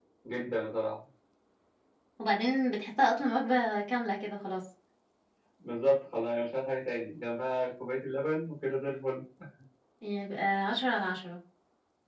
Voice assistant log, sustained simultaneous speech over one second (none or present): none